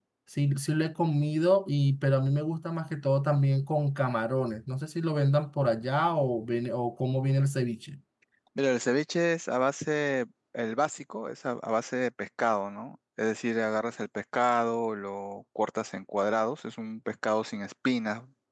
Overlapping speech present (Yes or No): No